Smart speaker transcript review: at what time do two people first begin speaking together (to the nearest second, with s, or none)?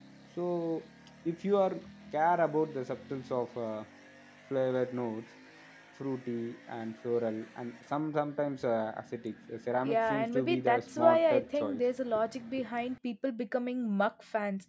10 s